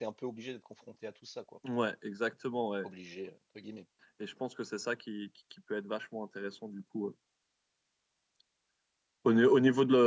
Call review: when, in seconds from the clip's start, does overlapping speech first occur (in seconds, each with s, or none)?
none